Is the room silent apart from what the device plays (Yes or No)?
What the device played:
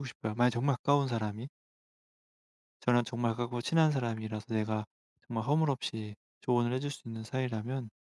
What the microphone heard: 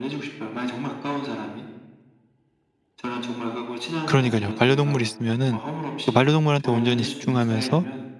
No